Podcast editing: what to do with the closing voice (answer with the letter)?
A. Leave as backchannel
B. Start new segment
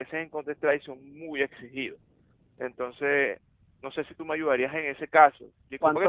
A